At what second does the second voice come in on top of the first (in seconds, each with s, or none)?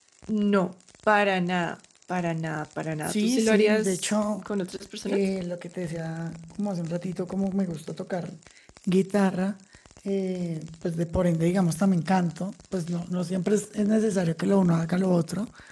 3.0 s